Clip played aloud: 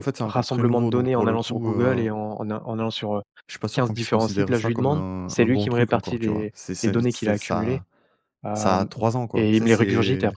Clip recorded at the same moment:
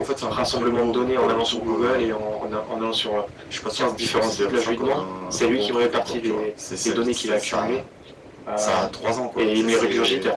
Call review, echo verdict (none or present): present